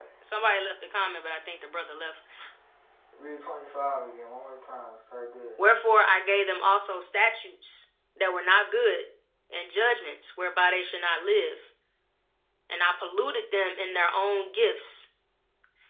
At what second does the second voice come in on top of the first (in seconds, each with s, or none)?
none